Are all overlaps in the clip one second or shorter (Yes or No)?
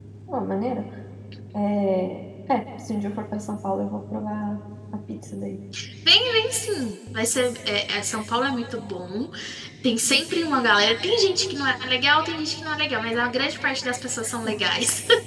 Yes